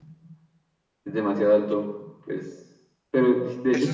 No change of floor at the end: No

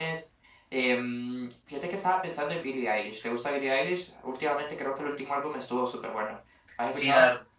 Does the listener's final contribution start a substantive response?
Yes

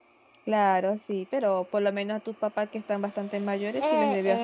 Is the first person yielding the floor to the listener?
Yes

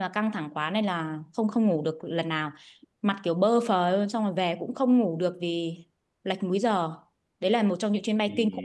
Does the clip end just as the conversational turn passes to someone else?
Yes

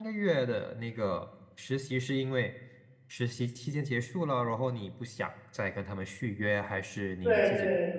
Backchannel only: No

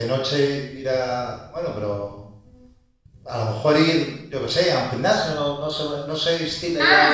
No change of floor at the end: No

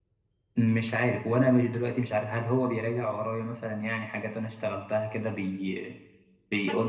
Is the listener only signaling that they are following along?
No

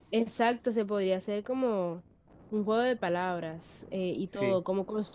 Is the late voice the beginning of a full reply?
No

